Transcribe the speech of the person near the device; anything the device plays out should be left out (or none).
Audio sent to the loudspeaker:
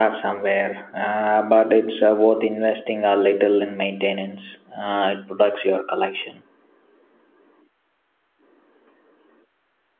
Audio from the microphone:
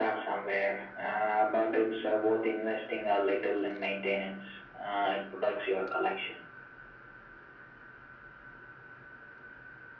none